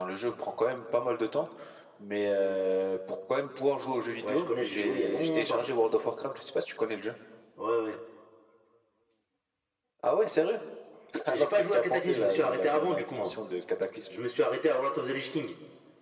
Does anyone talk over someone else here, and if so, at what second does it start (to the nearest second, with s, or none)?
4 s